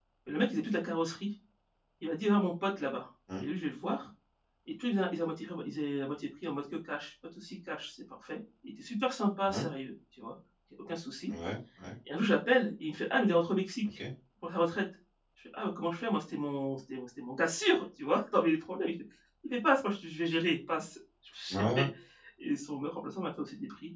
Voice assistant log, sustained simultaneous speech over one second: none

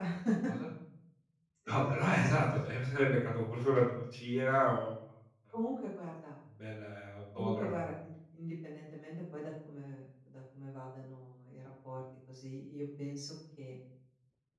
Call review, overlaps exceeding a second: none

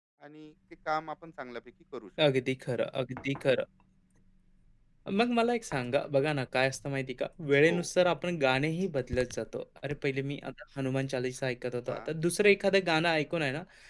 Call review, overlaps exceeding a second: none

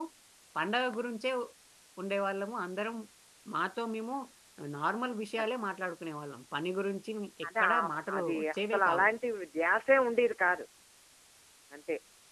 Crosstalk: present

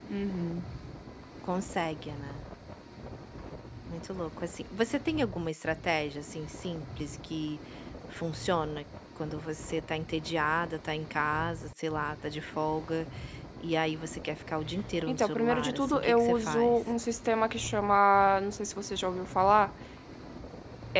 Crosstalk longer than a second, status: present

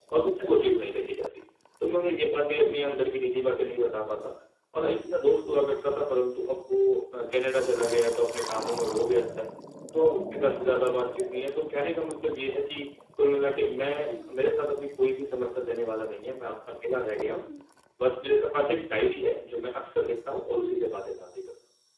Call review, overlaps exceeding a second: none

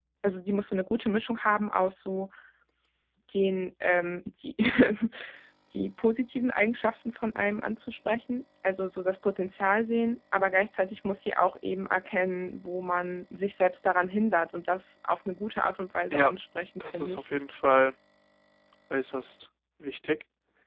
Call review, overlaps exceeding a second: none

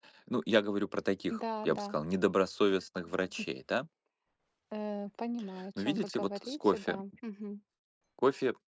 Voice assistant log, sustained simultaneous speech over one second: present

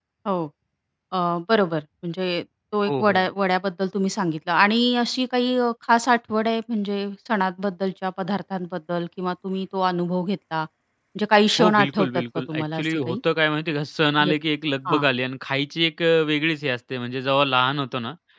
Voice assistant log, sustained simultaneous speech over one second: present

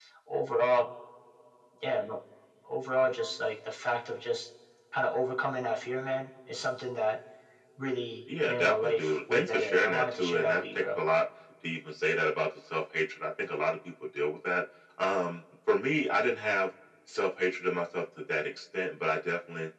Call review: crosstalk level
present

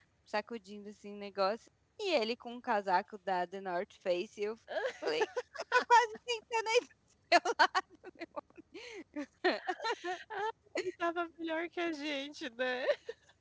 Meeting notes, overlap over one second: none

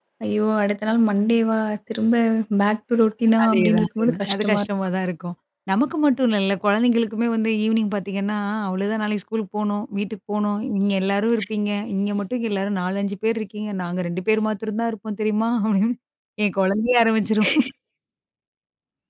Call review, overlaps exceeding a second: present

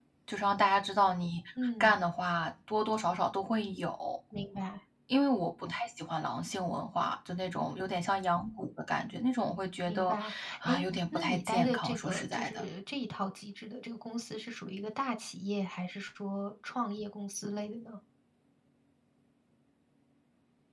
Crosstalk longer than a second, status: present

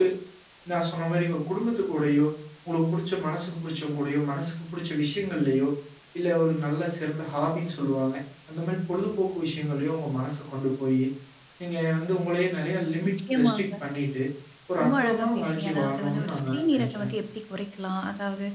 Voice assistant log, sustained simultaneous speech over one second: present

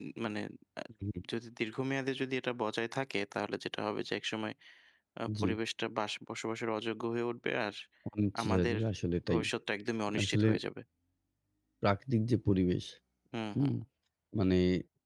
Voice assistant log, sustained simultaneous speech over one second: none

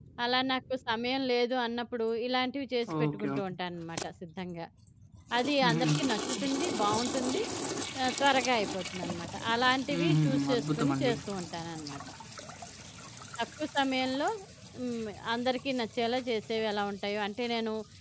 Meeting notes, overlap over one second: present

